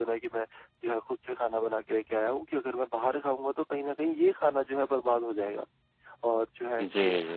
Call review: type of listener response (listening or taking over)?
listening